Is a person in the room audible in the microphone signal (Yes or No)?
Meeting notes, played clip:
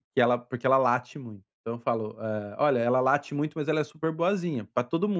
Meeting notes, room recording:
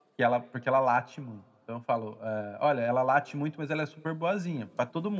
No